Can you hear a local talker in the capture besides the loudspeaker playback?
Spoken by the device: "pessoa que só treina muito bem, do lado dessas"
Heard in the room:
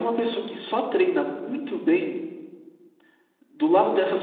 No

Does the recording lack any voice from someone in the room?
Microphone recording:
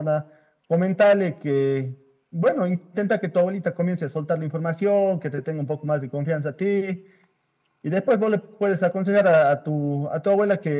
Yes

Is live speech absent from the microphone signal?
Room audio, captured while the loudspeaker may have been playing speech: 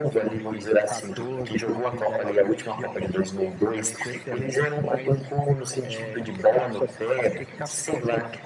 Yes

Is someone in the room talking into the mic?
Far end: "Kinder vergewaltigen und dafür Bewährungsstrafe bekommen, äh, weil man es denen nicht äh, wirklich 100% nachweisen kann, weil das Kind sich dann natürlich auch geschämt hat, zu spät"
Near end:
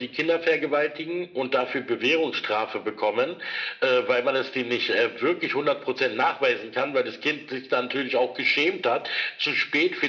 No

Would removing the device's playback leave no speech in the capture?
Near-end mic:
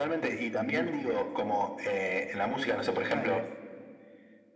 No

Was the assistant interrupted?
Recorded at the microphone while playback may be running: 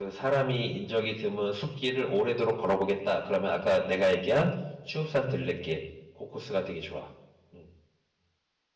Yes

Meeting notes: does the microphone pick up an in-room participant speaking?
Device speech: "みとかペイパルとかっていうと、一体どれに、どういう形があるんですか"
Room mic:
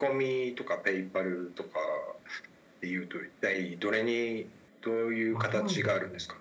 Yes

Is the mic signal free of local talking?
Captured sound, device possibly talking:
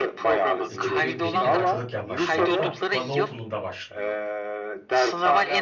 No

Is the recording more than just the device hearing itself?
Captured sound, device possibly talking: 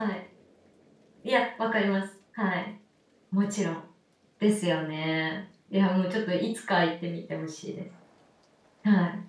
Yes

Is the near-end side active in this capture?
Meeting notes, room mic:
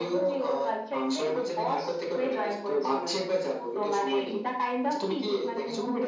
No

